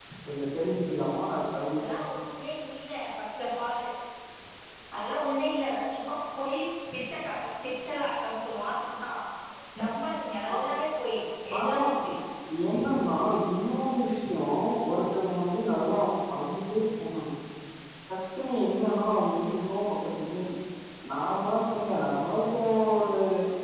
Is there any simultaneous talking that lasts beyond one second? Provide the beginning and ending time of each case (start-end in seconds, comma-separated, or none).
none